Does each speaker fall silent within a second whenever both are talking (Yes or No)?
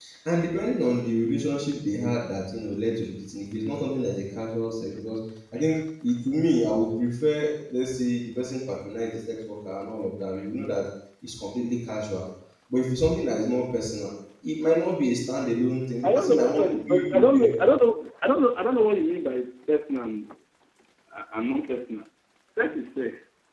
No